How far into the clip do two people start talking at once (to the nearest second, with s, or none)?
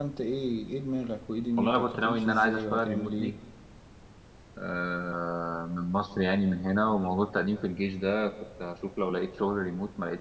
2 s